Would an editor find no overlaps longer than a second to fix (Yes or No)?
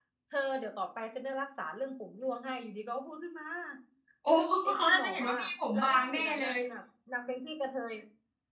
No